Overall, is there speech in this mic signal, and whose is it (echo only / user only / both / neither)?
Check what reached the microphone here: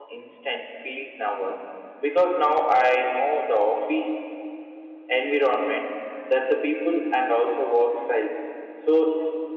user only